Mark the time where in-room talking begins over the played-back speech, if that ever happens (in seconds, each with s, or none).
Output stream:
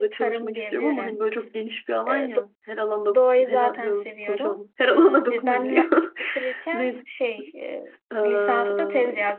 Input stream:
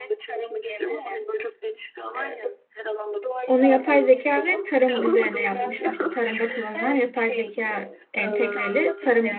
3.5 s